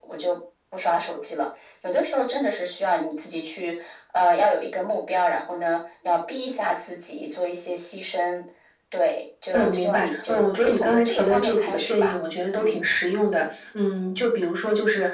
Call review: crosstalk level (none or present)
present